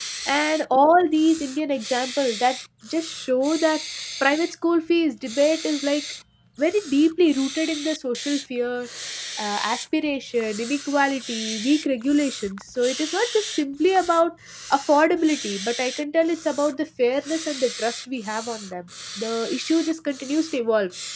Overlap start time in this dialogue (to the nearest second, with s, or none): none